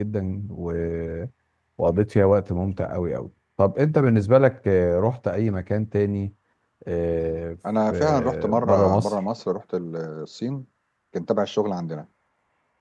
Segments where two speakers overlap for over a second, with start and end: 7.9-9.1

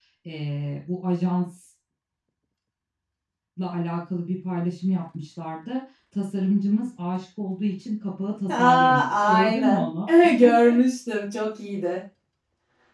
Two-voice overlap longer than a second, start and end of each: 8.5-9.8

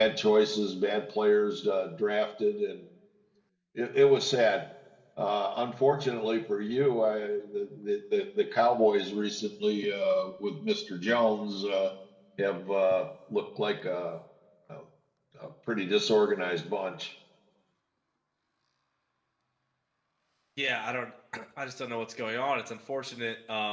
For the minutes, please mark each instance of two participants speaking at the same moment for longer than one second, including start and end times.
none

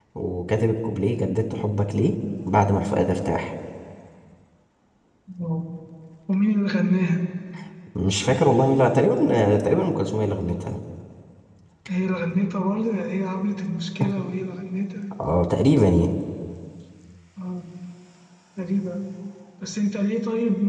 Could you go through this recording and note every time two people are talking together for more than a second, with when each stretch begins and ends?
none

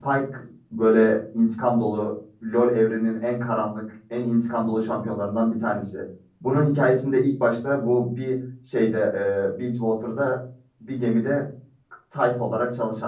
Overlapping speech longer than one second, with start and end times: none

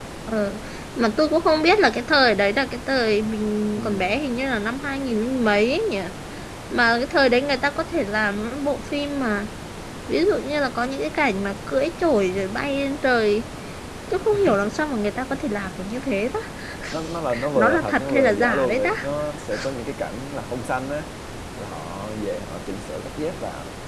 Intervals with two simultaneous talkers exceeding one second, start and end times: 17.6-18.9

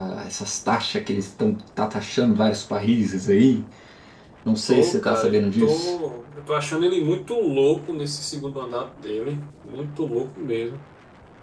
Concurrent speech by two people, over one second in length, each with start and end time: 4.7-5.9

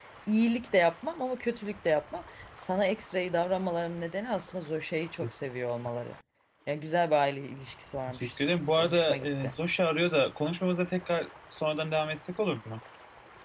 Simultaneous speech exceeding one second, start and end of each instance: 8.2-9.5

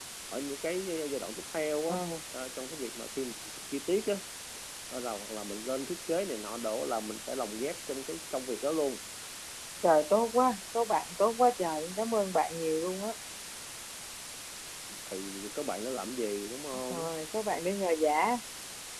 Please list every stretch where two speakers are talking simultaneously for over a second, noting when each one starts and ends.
none

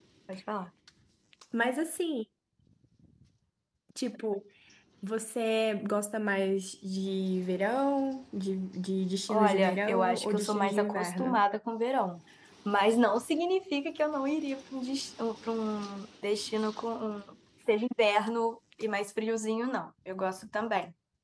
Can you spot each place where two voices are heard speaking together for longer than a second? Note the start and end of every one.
9.3-11.4

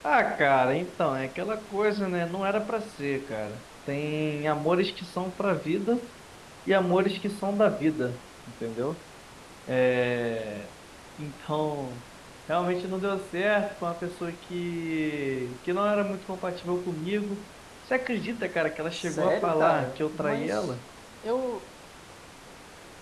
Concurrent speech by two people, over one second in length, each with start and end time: 18.9-20.7

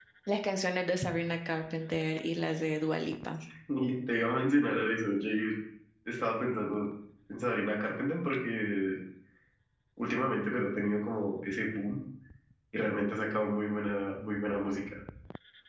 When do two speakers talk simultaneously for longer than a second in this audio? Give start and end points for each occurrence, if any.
none

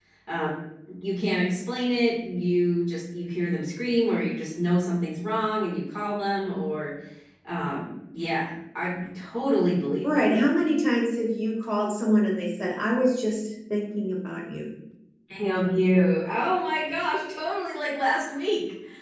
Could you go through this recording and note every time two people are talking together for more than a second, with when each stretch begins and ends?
none

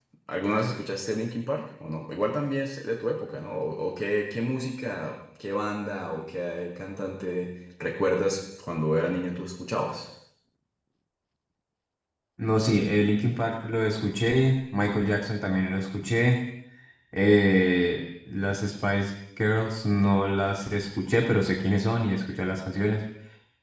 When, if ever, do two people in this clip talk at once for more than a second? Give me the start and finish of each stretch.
none

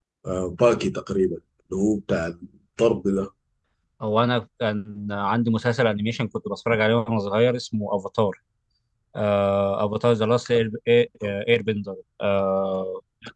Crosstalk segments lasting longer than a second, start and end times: none

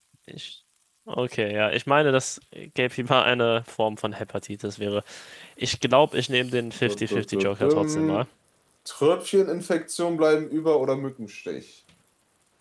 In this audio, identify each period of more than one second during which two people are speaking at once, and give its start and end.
6.8-8.2

